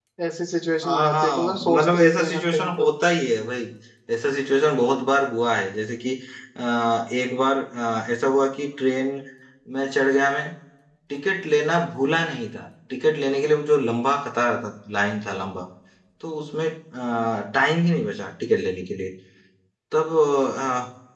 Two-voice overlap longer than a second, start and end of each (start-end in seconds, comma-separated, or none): 0.8-2.9